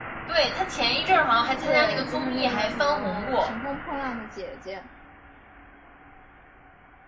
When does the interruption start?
1.6 s

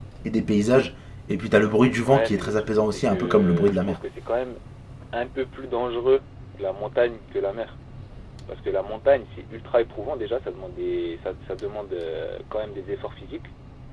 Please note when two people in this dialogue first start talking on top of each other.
2.0 s

